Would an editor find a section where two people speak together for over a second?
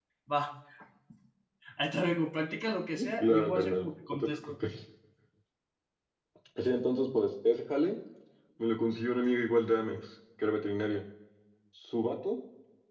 Yes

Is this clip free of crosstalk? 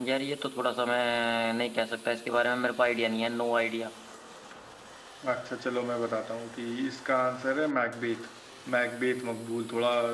Yes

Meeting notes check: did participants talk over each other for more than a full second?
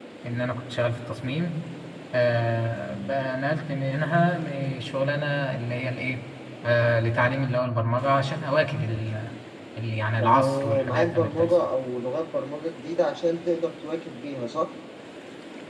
Yes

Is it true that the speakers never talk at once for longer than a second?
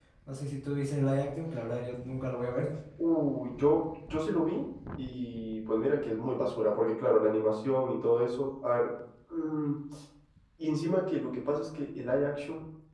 Yes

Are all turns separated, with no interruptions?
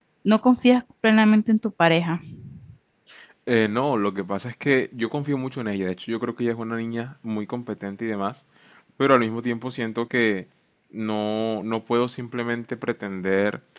Yes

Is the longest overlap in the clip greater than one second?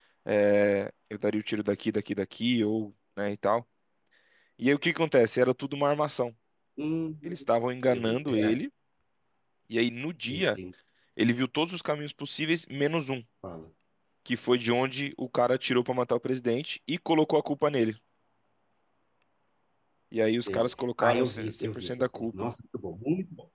Yes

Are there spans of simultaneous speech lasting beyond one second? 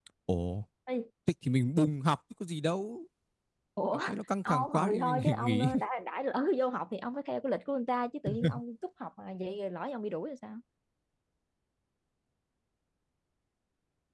Yes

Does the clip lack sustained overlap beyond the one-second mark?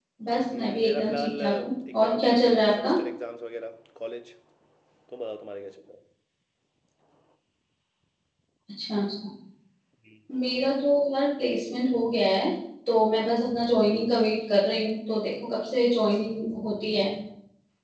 No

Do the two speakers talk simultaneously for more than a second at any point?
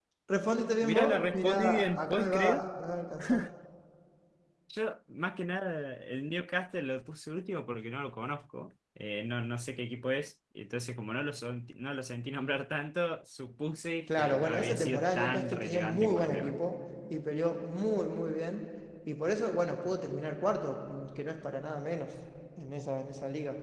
Yes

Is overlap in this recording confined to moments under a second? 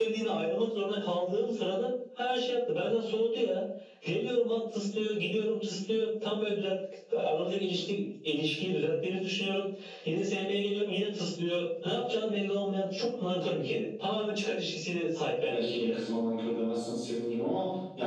Yes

